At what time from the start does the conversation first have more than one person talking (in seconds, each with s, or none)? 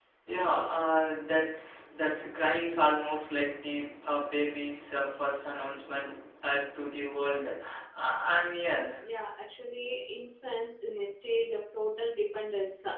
none